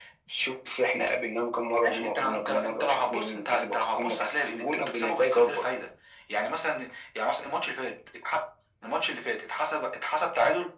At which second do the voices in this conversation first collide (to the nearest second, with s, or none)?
2 s